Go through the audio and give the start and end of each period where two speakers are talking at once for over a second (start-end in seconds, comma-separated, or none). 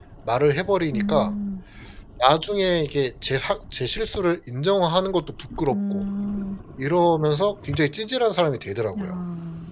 none